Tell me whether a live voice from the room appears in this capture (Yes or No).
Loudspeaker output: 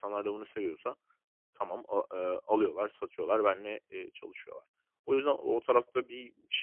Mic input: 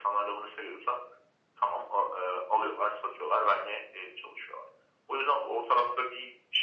No